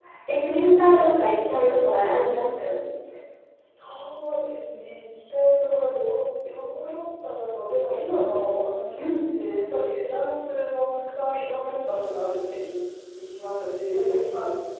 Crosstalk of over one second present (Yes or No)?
No